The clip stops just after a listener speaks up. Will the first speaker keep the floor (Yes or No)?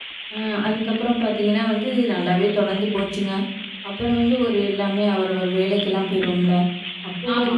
Yes